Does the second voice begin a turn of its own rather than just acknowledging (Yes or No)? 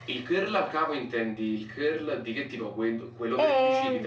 Yes